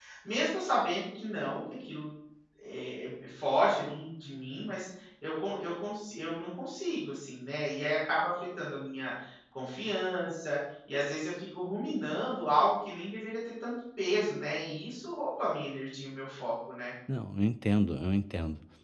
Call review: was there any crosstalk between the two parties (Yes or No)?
No